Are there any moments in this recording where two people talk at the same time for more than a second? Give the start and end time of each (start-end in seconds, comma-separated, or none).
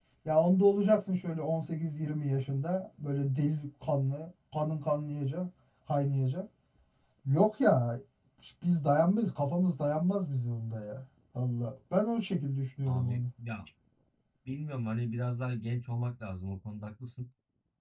none